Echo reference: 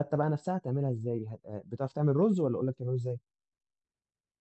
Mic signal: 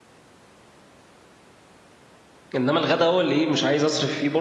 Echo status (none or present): none